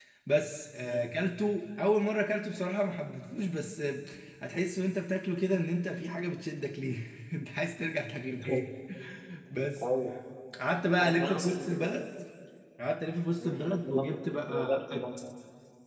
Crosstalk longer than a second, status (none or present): present